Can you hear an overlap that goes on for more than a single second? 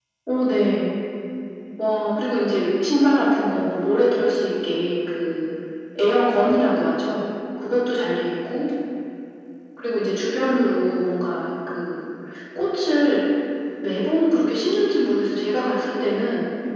No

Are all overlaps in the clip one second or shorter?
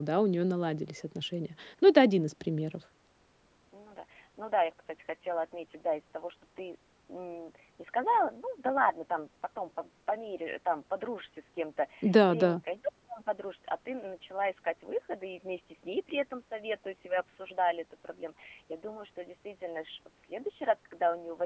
Yes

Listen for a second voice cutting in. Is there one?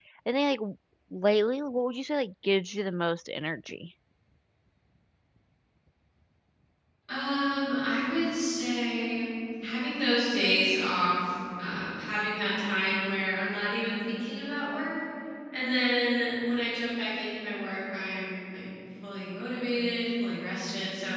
No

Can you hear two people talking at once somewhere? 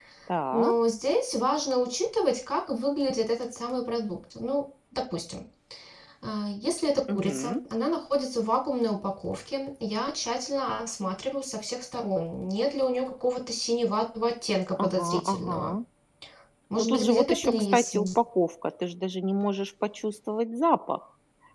Yes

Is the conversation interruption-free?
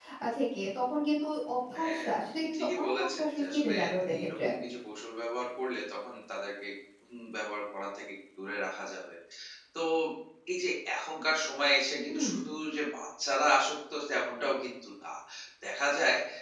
No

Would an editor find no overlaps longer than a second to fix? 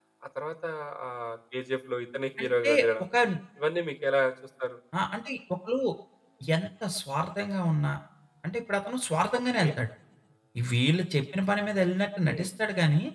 Yes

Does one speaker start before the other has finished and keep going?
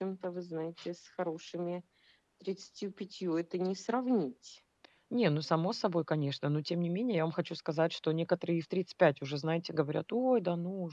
No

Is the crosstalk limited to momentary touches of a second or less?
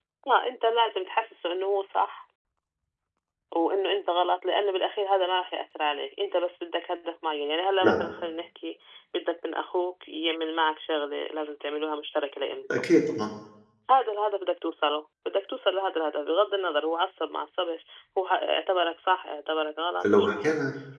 Yes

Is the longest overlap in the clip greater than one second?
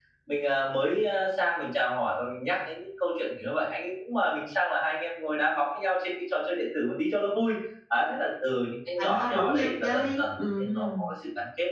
Yes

